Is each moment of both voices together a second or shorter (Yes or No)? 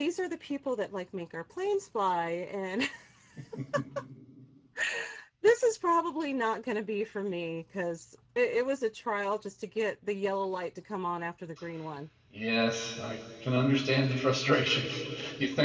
Yes